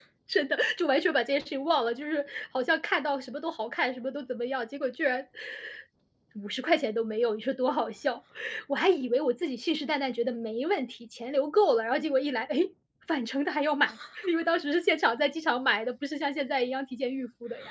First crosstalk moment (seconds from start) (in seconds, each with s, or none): none